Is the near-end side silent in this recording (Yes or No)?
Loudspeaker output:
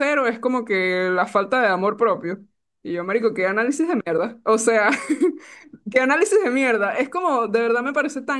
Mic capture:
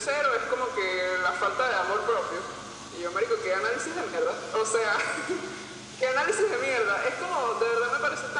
Yes